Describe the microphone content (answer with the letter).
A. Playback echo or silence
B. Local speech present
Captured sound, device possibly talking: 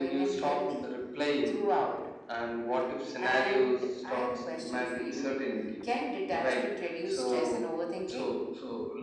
A